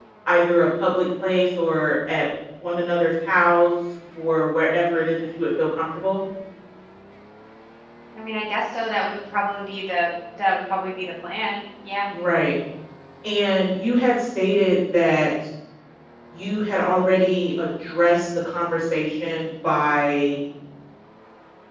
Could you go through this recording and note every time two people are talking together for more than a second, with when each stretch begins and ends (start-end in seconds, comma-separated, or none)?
none